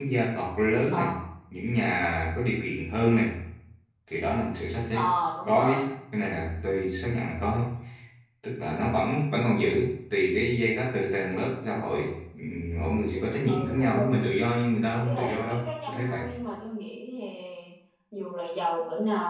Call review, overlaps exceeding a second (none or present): present